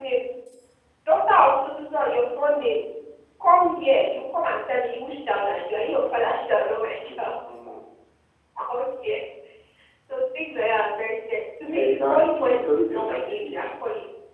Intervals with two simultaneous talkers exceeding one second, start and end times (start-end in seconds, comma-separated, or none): 11.7-13.6